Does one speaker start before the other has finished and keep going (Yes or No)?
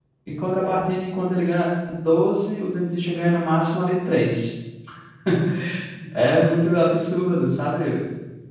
No